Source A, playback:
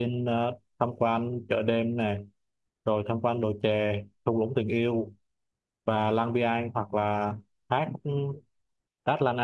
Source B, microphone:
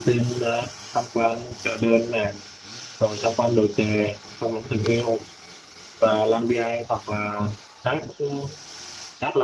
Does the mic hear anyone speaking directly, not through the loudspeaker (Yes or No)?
No